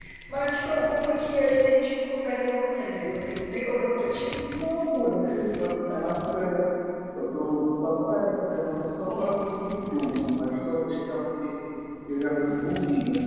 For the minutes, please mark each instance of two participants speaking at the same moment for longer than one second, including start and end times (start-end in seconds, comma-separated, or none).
none